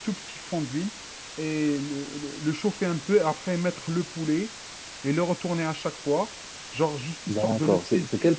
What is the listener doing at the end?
taking over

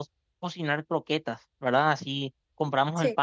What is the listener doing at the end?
listening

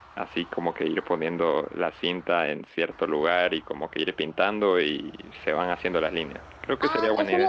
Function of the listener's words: taking over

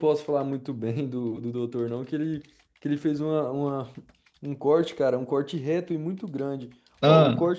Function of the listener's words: listening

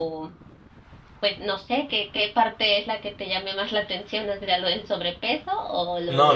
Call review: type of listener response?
taking over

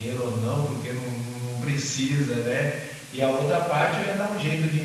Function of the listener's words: listening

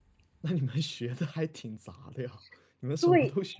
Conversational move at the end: listening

